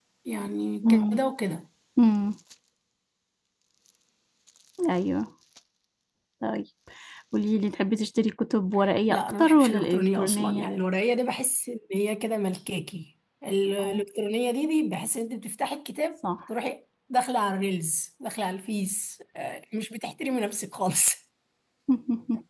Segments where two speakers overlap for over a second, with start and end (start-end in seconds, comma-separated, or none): 9.1-10.7